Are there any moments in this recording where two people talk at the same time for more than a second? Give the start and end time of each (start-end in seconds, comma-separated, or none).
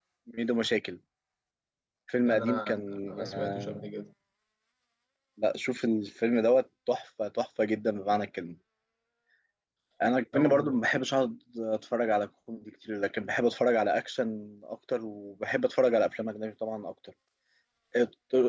2.2-3.9